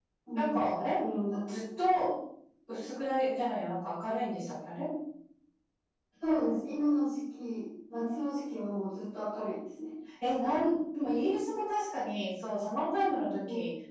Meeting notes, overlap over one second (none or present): none